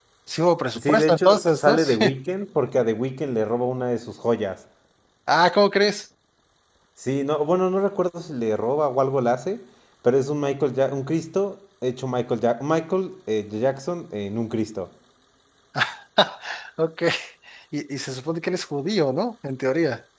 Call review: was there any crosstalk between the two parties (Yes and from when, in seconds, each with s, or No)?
Yes, from 0.8 s